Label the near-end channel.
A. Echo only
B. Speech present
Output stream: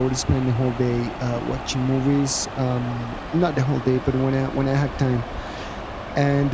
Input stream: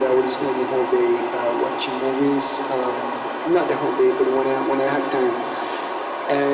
A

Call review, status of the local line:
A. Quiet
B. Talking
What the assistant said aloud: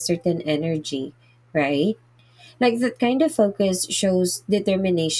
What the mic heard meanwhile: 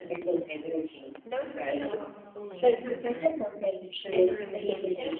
B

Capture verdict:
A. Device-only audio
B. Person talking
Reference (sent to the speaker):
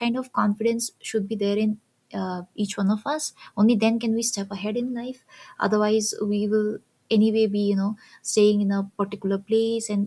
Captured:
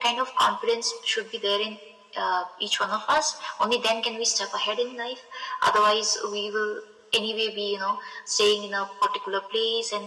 A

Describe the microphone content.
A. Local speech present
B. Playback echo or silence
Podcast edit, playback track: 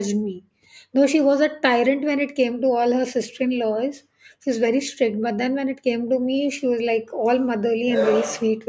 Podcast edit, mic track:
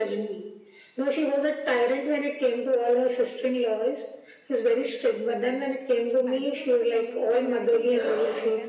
A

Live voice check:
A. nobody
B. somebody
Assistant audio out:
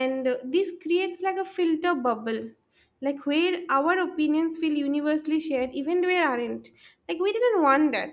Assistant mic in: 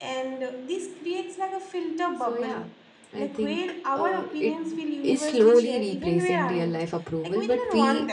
B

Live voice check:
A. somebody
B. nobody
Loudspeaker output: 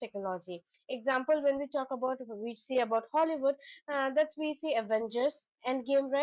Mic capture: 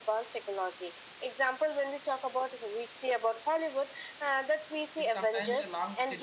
A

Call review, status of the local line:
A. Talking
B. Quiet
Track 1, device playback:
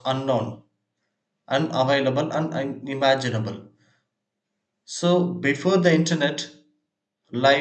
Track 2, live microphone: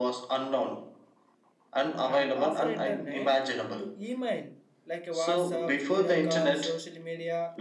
A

